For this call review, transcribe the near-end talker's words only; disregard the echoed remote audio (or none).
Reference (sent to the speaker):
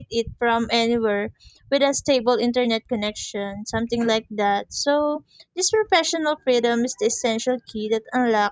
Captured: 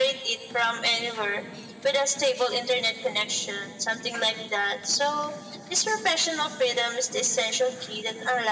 none